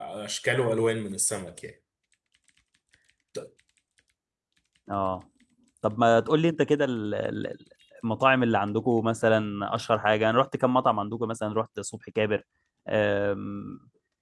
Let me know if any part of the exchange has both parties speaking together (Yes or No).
No